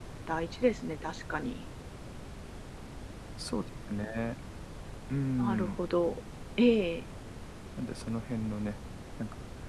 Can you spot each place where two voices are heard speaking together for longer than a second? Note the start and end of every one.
none

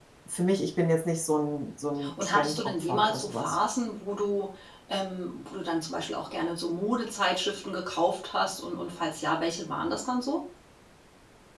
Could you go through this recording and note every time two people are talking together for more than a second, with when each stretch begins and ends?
2.2-3.6

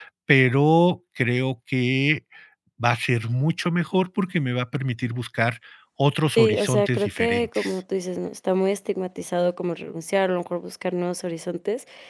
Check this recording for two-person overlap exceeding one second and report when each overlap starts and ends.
6.4-7.7

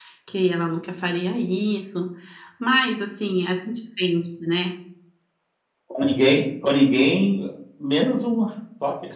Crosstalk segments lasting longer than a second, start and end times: none

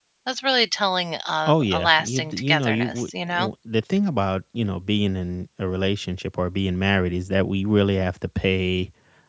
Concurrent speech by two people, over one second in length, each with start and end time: 1.5-3.5

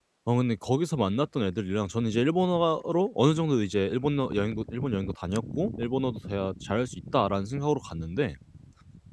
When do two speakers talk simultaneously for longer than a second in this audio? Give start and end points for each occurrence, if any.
none

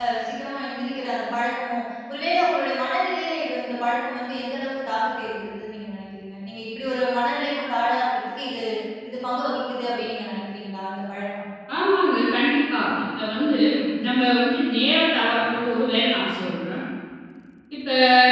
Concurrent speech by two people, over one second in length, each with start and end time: none

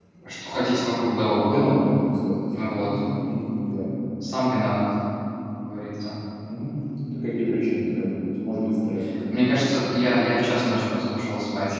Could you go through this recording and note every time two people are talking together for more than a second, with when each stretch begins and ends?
none

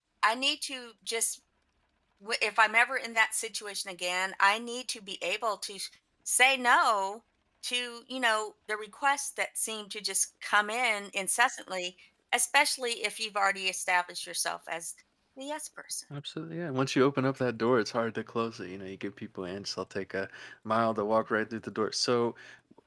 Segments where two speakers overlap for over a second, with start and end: none

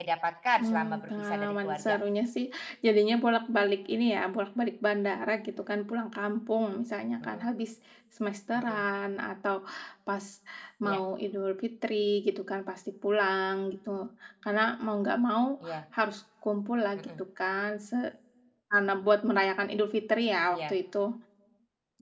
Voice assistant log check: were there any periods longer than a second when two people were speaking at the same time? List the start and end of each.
0.6-2.0

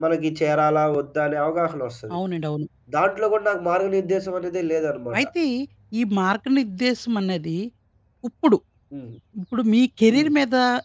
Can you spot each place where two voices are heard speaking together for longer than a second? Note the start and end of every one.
none

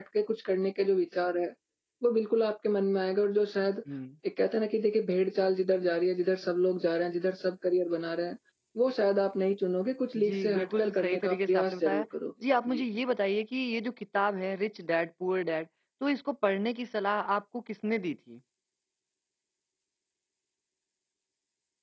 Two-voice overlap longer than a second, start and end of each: 10.2-12.1

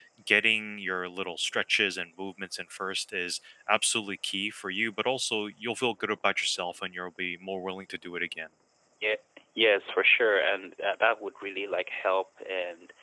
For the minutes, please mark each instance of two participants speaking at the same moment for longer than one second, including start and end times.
none

